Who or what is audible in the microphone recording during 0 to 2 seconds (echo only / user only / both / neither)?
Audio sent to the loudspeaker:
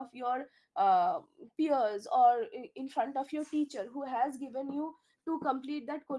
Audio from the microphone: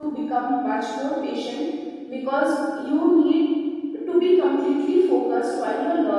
user only